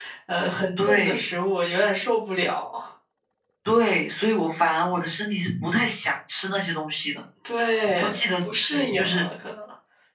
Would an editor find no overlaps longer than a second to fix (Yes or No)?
No